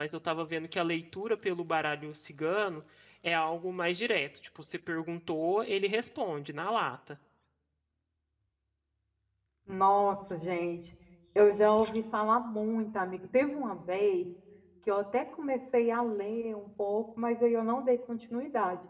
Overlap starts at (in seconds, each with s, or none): none